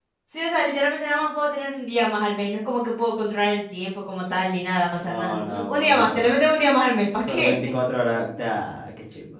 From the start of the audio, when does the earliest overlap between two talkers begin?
5.0 s

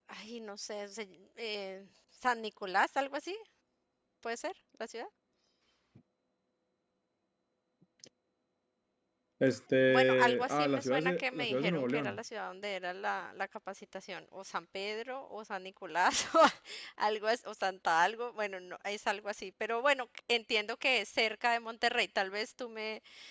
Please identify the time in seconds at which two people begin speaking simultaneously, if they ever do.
9.9 s

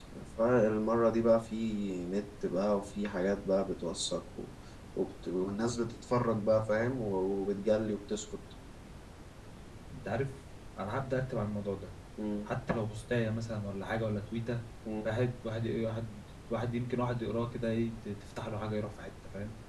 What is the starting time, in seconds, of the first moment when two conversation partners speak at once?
none

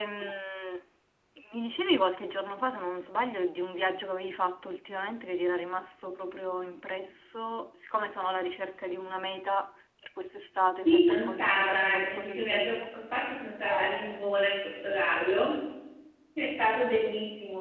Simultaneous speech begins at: 10.8 s

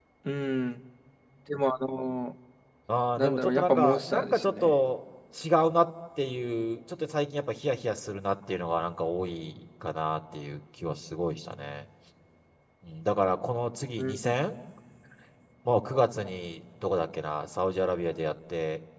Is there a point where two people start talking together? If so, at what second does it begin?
3.2 s

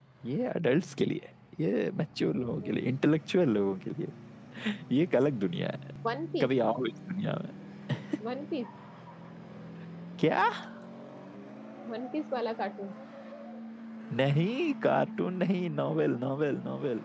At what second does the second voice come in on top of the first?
none

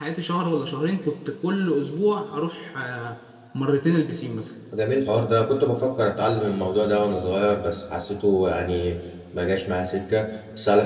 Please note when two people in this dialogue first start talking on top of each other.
none

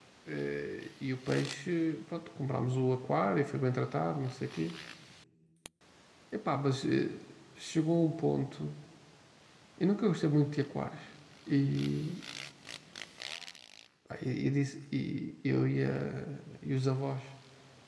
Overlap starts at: none

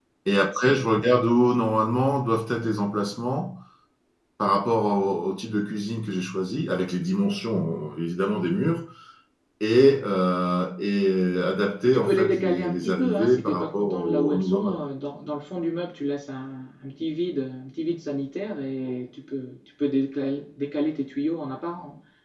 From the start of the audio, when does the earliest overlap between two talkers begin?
11.8 s

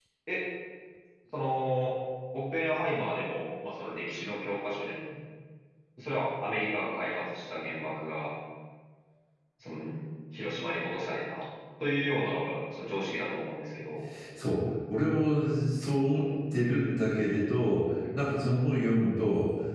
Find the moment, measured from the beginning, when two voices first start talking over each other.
none

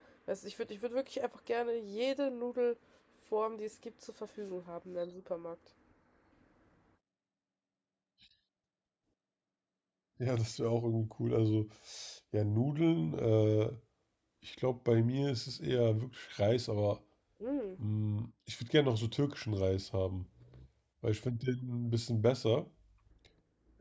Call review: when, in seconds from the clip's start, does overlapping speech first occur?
none

